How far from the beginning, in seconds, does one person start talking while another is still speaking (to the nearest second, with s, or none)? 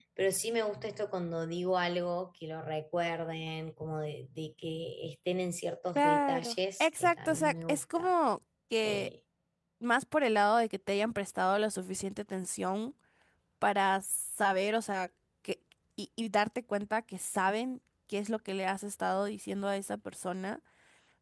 6 s